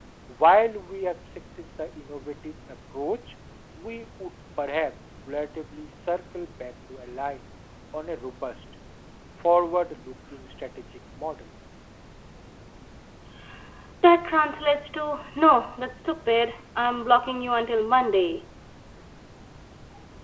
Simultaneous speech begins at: none

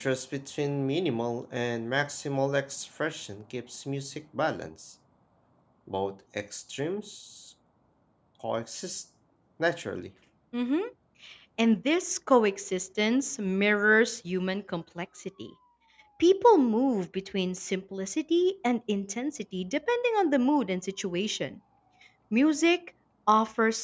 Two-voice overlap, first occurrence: none

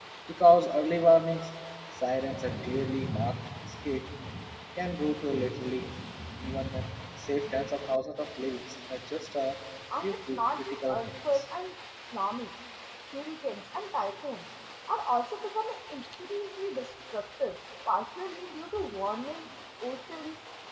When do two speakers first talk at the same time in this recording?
10 s

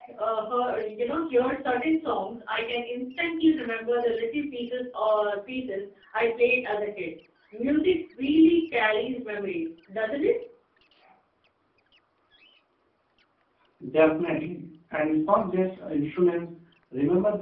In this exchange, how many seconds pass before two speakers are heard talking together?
none

